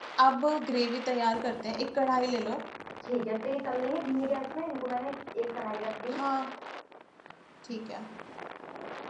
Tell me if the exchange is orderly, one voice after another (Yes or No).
Yes